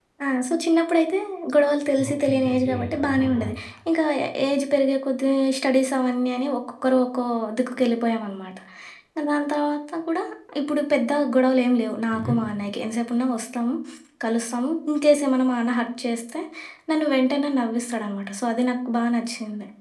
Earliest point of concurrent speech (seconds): 2.1 s

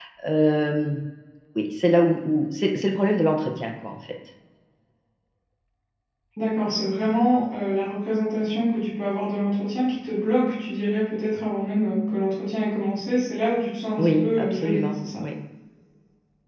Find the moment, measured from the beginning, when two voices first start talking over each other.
14.0 s

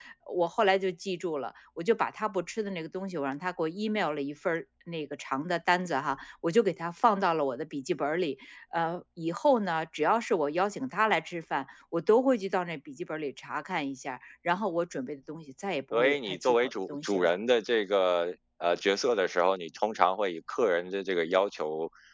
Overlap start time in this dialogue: 15.9 s

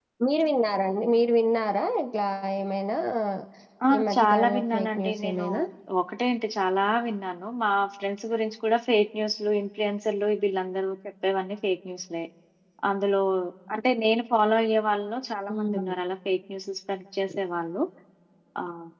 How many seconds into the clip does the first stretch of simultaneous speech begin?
4.2 s

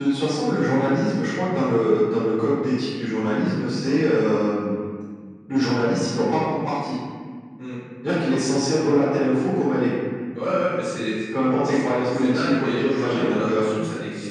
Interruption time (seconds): 12.1 s

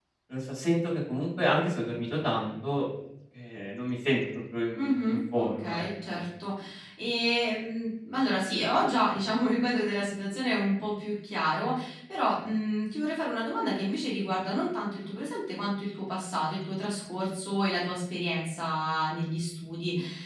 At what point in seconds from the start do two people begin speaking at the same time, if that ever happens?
4.8 s

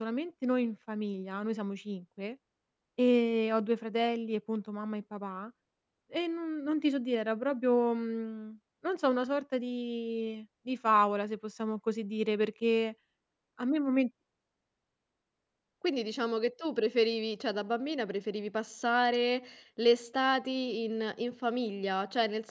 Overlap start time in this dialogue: none

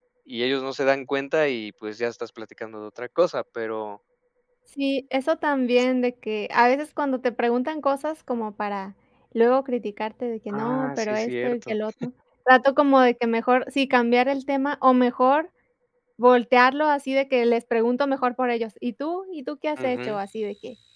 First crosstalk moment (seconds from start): 10.5 s

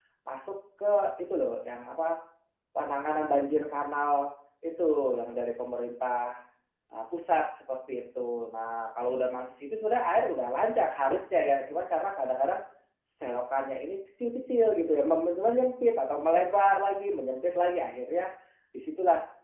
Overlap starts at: none

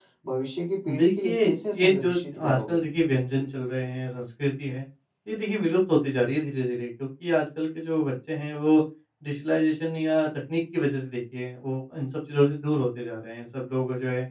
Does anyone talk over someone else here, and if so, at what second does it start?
0.9 s

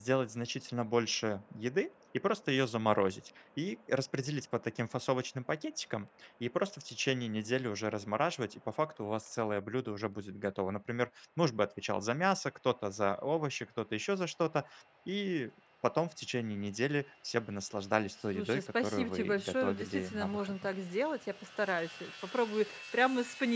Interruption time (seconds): 18.3 s

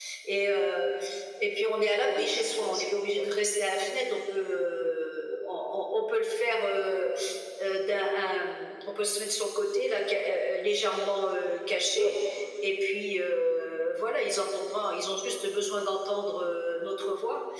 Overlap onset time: 2.0 s

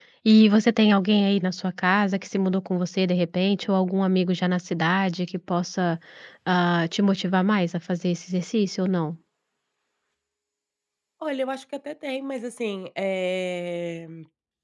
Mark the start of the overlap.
none

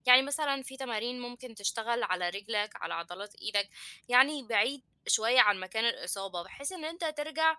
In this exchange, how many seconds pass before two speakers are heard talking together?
none

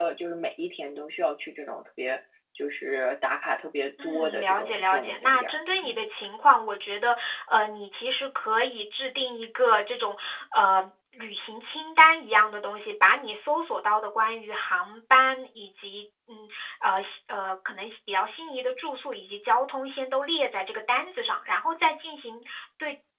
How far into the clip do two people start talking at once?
4.0 s

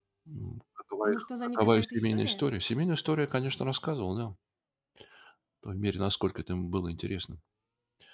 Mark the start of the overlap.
1.0 s

